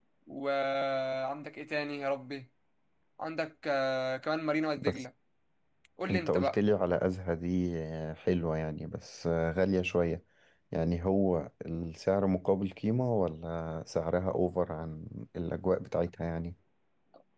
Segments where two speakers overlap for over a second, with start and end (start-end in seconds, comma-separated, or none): none